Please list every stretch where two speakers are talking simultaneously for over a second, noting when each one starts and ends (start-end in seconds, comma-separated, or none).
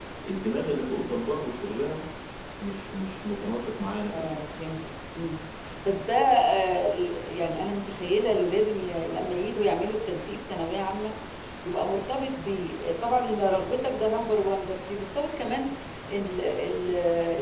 none